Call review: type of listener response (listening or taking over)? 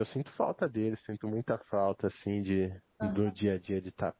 listening